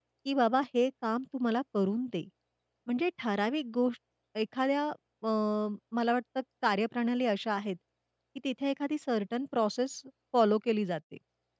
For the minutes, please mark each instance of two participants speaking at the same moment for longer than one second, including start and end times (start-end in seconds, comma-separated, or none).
none